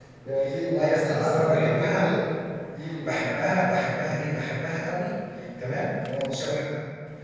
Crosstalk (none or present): present